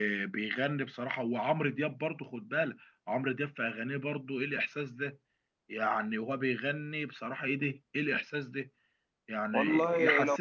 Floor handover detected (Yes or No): No